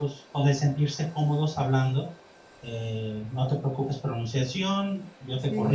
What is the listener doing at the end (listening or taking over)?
listening